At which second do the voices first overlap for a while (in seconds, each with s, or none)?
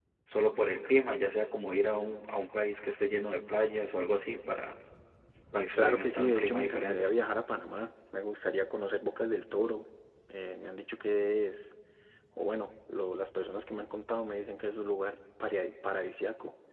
5.8 s